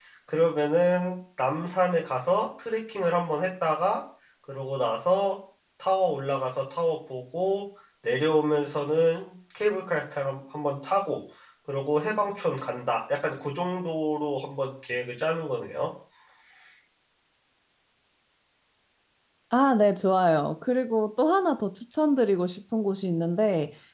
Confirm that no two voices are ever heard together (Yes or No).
Yes